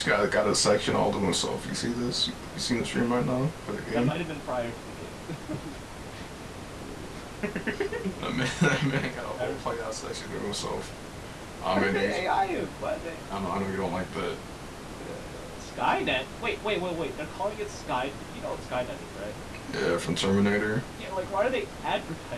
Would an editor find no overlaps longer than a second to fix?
Yes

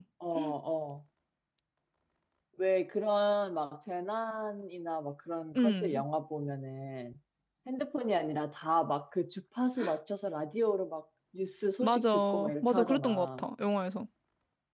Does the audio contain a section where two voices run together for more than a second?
Yes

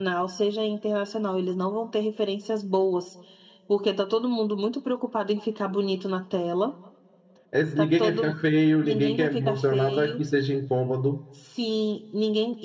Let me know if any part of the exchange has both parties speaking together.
Yes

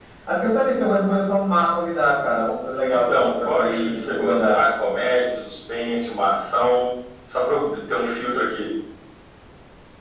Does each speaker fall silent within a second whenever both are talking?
No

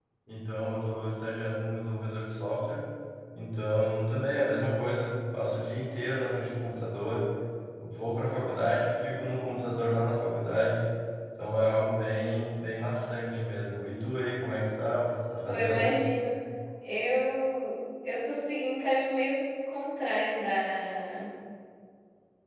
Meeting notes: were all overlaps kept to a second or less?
Yes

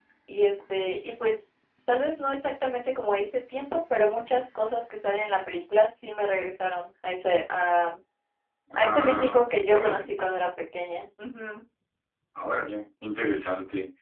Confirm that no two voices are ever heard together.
No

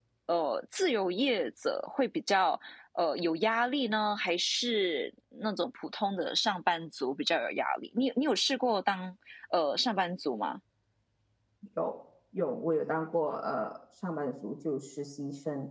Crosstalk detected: No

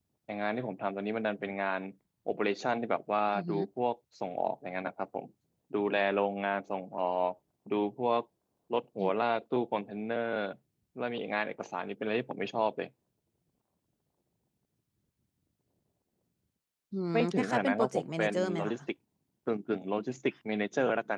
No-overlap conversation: No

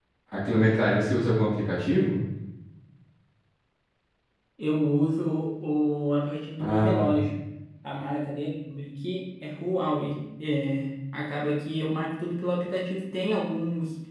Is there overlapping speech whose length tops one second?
No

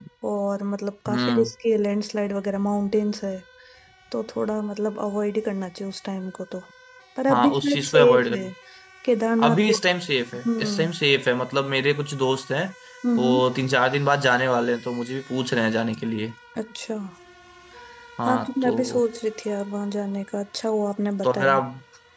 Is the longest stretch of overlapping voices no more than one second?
No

